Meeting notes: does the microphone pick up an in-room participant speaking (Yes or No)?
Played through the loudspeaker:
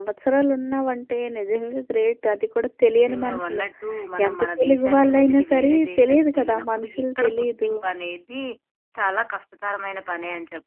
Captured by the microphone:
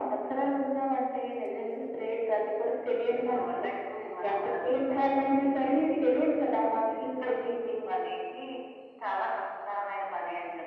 No